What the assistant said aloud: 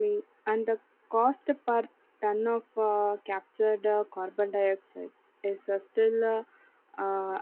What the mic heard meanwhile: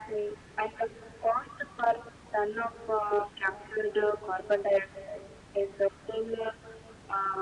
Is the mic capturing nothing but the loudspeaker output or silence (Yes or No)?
Yes